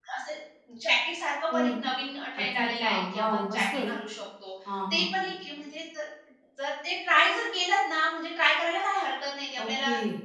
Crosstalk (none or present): present